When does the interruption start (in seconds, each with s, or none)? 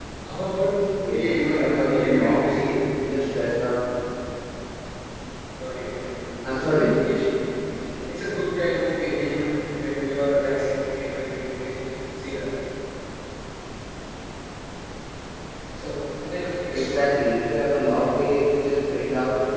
1.1 s